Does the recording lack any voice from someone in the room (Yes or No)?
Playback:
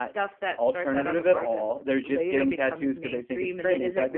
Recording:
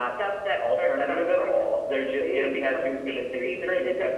Yes